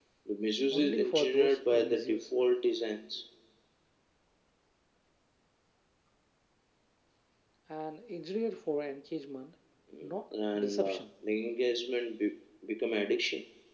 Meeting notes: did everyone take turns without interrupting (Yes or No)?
No